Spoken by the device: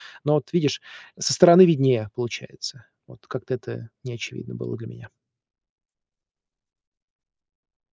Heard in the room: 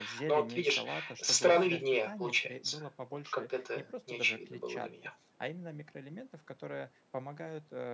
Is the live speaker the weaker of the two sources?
Yes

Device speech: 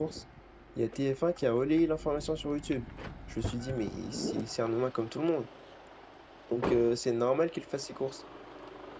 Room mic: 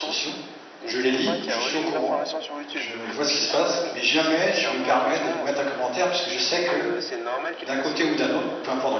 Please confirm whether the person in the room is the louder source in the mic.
Yes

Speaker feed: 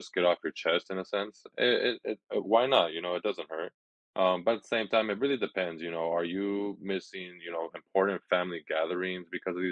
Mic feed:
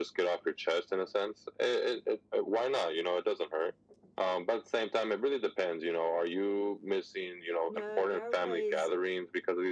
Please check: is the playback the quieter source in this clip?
No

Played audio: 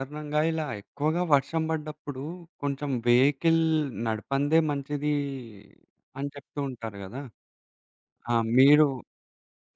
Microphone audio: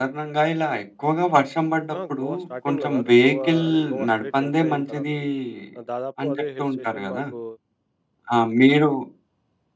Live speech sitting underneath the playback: Yes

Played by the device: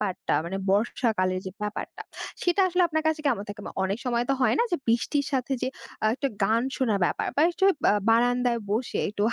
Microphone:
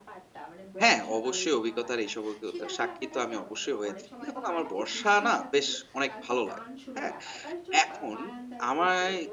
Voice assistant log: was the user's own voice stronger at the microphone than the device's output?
Yes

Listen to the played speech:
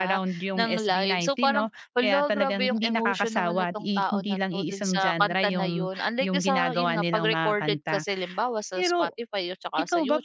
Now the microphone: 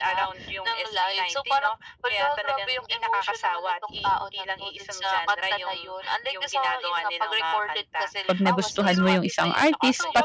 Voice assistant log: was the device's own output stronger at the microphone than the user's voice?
No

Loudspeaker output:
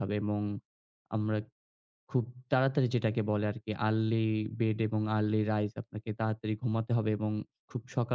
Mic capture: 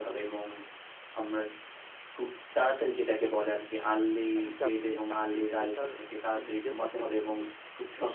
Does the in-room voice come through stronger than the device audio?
No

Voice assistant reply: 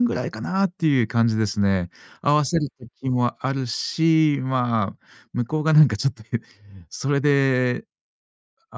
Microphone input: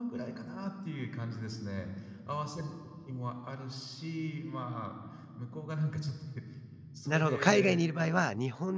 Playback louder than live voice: No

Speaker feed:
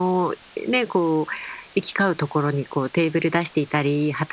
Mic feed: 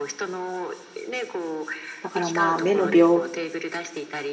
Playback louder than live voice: No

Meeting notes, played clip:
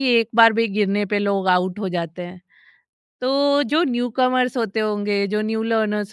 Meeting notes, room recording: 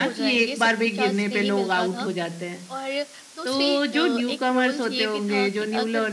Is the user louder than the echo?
No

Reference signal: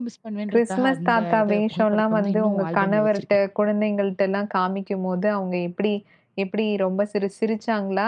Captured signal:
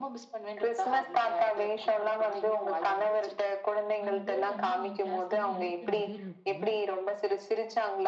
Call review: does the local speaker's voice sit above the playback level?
No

